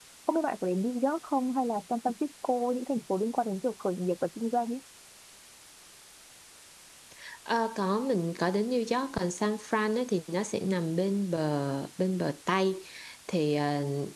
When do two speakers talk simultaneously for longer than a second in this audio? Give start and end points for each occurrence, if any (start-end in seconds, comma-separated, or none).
none